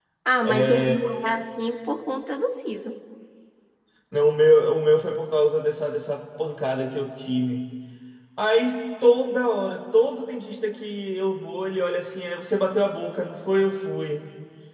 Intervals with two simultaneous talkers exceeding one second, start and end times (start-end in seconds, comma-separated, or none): none